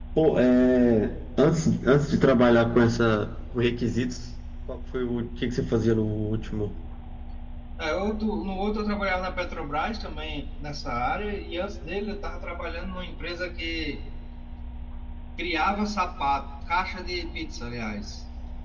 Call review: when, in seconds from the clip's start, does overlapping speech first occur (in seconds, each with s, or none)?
none